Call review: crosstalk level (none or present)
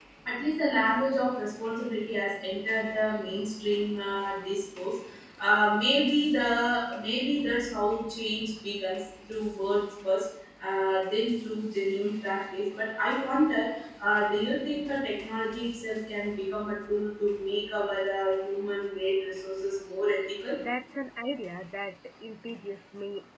none